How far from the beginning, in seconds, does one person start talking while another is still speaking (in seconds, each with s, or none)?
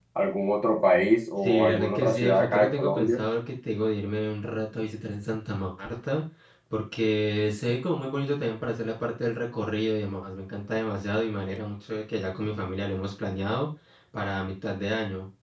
1.4 s